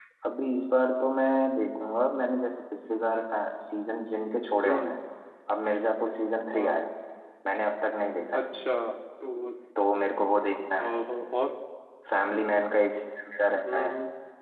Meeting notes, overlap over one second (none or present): none